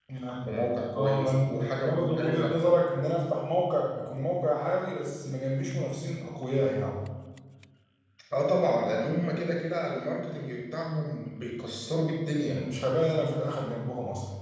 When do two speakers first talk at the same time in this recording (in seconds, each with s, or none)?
1.0 s